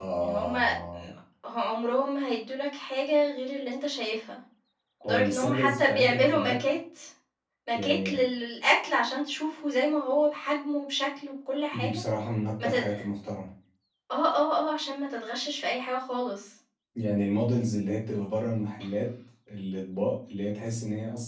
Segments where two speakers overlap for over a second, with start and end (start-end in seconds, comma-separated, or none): 5.0-6.7